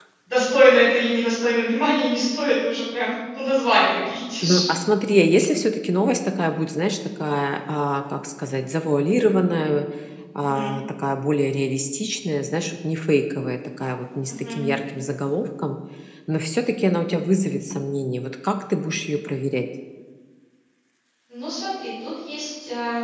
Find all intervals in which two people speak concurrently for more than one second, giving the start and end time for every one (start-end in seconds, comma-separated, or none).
none